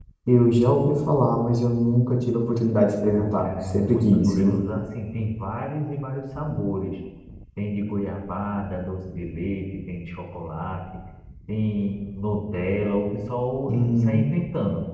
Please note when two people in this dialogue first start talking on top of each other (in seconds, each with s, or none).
3.1 s